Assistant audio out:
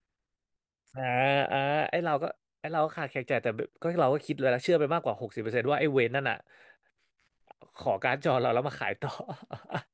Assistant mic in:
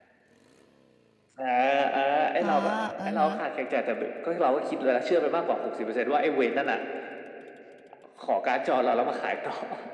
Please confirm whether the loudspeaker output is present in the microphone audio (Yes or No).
Yes